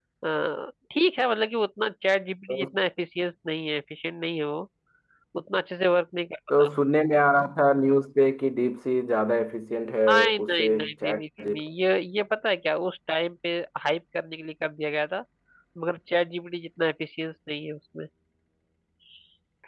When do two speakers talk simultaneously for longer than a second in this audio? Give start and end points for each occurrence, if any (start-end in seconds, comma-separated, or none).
10.1-11.6